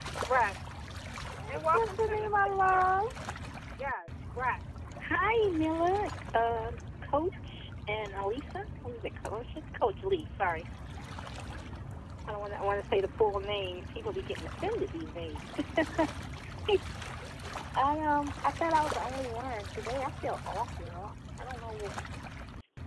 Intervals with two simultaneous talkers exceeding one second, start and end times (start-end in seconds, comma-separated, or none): 1.5-2.9